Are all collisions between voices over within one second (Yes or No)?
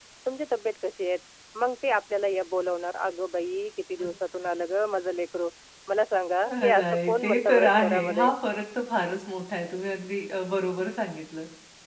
No